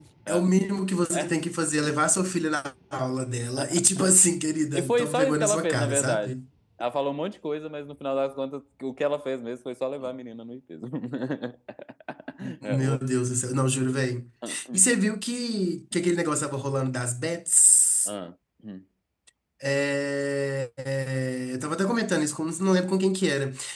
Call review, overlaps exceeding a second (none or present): present